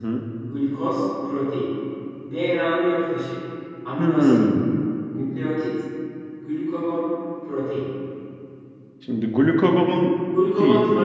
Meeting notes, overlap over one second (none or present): none